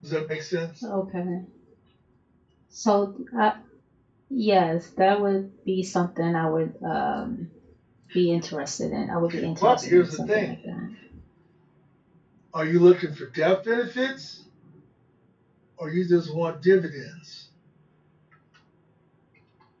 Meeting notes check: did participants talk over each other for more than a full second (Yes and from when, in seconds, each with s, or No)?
Yes, from 9.3 s